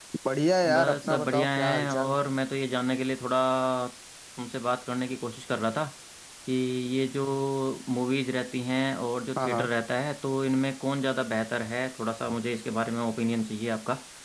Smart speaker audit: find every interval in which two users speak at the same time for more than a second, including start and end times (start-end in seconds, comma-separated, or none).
0.7-2.2